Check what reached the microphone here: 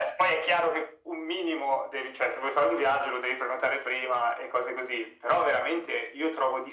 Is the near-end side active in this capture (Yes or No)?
No